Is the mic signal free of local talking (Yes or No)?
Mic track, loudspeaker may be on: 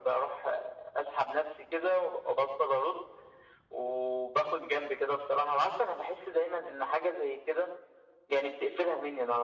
Yes